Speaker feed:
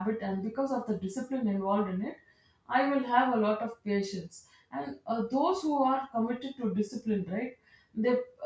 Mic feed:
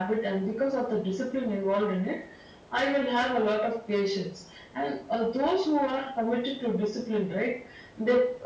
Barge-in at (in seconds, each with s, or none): none